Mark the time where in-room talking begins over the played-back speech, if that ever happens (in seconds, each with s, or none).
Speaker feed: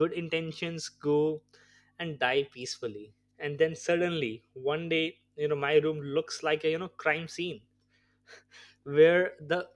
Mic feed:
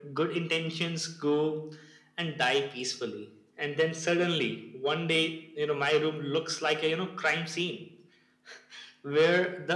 none